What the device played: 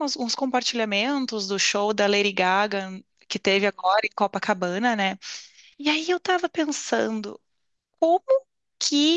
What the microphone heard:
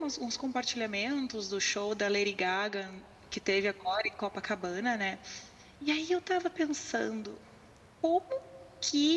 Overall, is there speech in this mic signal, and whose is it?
echo only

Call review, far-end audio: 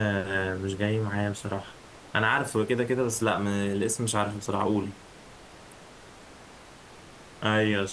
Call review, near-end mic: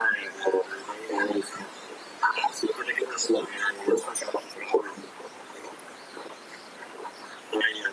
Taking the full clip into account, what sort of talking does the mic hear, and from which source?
echo only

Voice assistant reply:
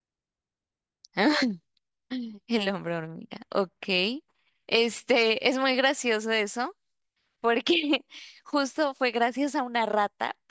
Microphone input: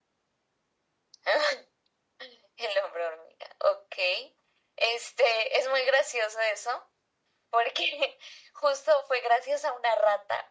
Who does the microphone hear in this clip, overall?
echo only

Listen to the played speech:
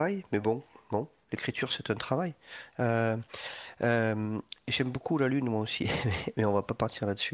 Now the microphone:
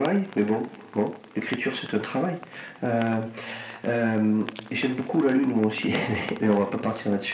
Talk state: echo only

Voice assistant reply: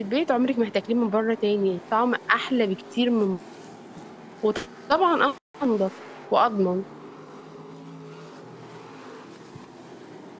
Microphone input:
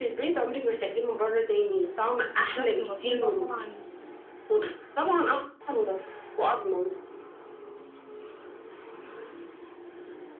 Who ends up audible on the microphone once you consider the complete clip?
both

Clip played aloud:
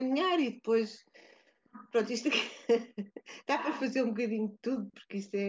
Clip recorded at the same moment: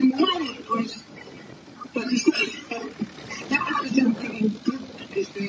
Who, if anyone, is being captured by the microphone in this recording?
echo only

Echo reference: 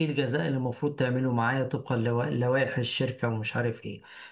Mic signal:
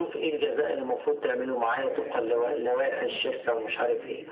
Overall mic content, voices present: both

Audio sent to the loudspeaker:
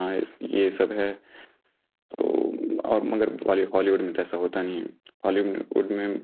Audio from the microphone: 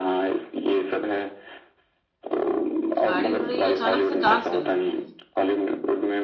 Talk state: both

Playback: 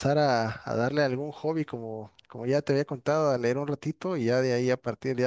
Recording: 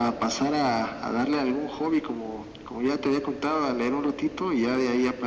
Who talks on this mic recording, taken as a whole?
echo only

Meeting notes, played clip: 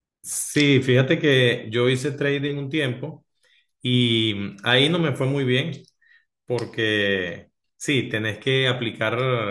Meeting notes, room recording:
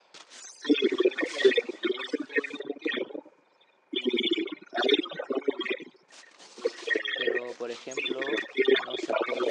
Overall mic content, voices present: both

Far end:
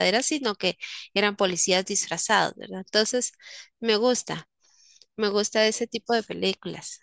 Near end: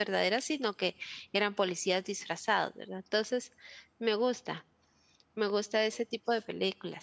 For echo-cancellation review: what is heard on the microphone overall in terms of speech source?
echo only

